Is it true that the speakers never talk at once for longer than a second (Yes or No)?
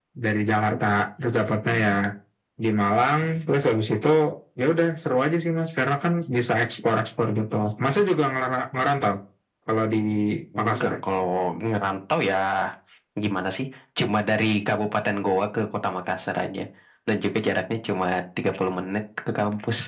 Yes